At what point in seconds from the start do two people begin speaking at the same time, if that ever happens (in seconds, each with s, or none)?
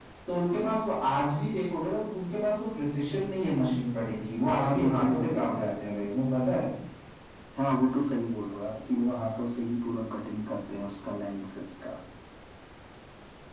4.6 s